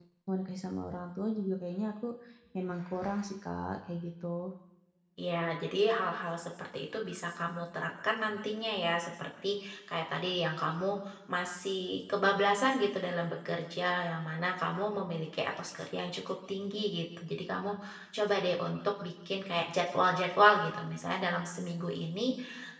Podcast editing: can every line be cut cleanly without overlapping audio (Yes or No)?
Yes